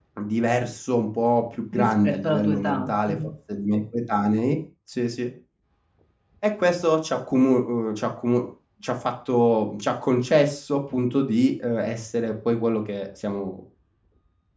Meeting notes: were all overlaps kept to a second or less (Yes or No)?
No